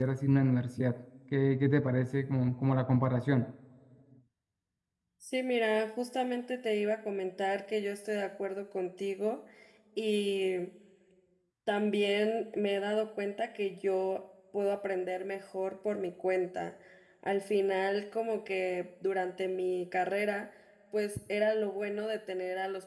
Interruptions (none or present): none